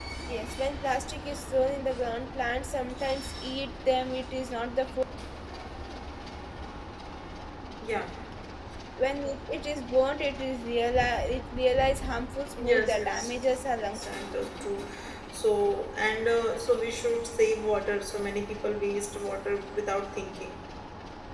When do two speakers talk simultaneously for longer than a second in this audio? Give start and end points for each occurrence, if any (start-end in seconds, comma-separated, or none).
12.7-14.1